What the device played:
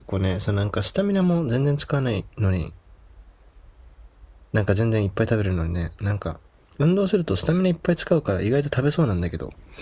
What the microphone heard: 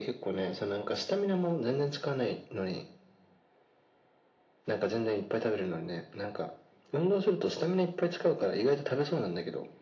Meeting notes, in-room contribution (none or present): none